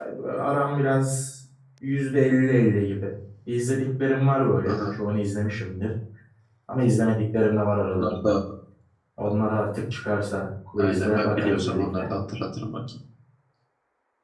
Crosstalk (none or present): present